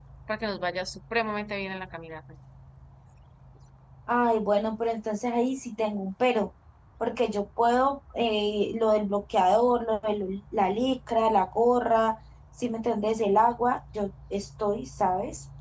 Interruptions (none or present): none